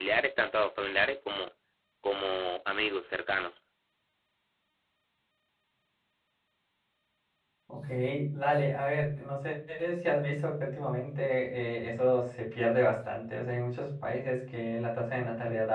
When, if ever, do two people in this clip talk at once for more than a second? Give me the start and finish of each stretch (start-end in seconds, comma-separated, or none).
none